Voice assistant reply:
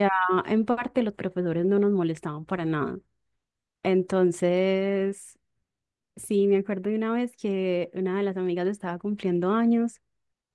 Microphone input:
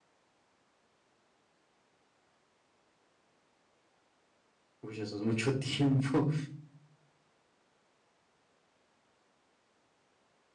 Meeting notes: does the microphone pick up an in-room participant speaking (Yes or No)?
Yes